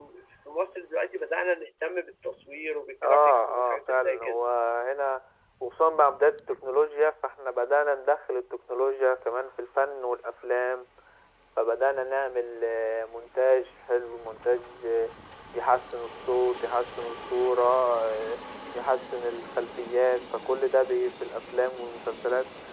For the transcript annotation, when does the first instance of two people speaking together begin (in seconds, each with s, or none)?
3.0 s